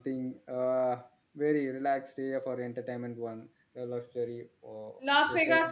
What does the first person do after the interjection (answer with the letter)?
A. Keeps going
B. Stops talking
B